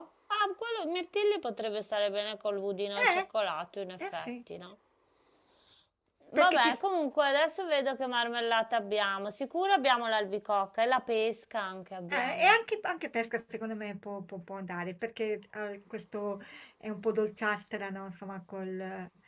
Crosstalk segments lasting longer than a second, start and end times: none

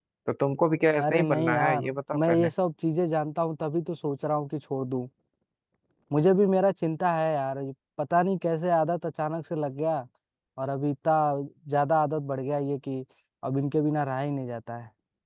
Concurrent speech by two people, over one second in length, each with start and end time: 1.0-2.5

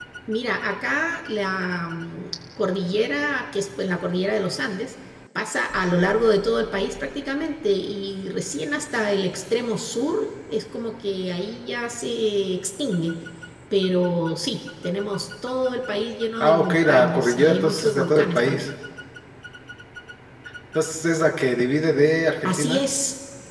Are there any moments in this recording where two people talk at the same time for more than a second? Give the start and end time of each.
16.4-18.7

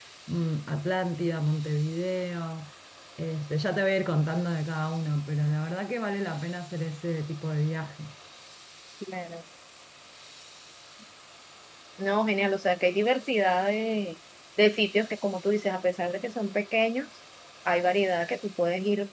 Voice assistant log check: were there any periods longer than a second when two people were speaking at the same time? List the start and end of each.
none

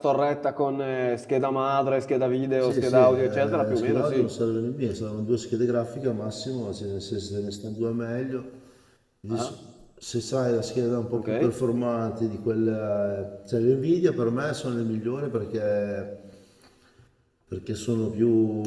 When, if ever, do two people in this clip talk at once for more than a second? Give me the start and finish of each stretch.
2.6-4.3

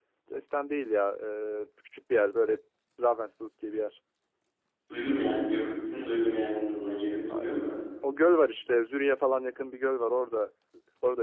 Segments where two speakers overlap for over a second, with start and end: none

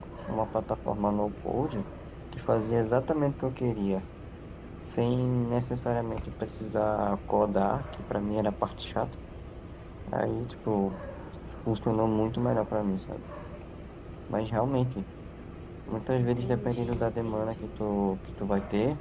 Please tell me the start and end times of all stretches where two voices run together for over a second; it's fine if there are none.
16.1-17.8

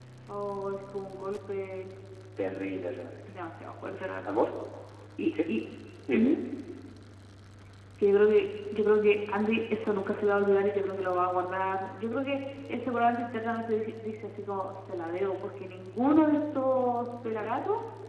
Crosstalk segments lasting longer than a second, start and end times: none

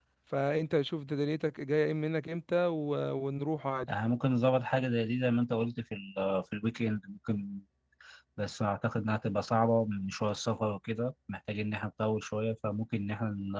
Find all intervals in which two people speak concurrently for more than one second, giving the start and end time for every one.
none

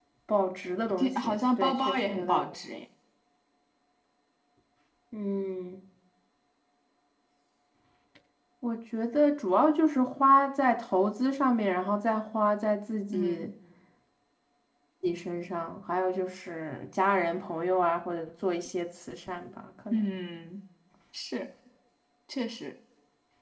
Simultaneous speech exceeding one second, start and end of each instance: 0.9-2.5

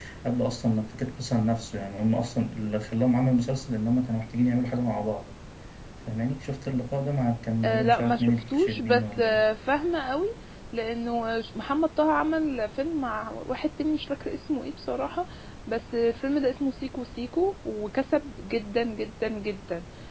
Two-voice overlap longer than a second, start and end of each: 7.6-9.4

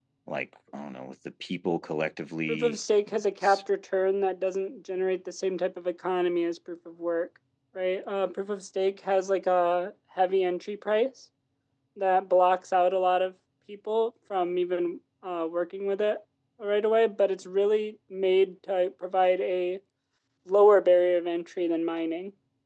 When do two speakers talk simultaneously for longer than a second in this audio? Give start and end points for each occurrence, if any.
none

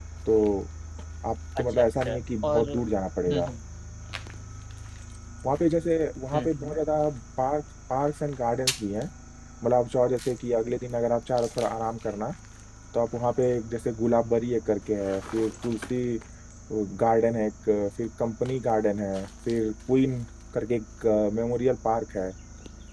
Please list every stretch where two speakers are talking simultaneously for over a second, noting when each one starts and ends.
1.6-3.5

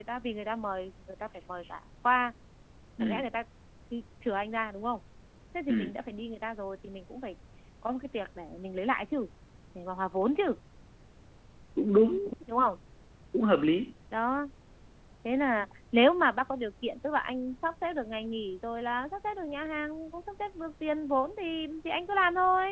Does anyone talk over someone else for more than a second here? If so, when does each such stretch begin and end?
none

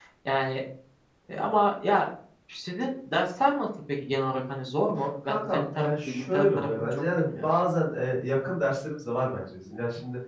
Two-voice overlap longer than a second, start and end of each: 5.2-7.5

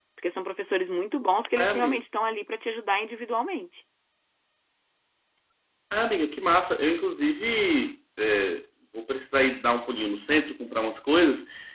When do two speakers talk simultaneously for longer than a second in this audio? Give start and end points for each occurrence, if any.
none

